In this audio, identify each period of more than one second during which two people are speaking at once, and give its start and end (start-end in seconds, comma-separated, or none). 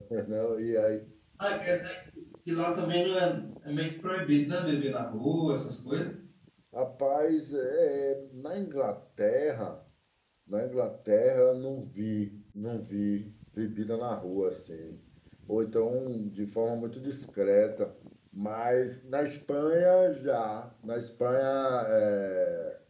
none